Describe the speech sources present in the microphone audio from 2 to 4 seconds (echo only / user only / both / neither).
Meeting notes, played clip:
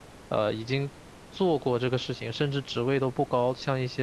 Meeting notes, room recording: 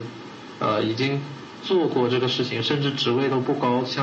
echo only